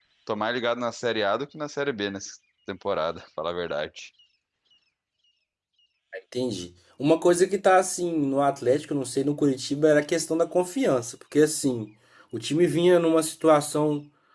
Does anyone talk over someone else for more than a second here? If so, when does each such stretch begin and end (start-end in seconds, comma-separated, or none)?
none